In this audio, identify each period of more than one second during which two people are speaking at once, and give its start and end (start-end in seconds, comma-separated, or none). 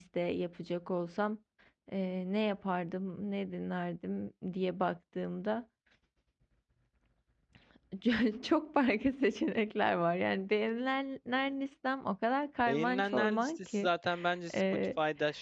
12.7-13.9